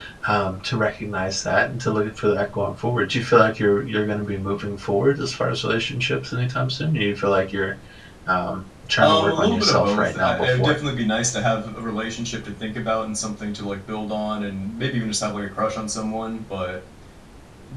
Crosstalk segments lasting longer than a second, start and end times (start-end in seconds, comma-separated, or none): 9.0-10.8